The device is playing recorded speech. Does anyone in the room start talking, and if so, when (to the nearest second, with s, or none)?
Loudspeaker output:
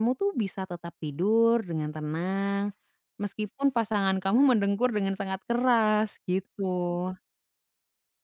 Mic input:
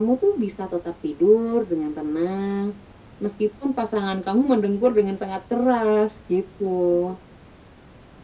none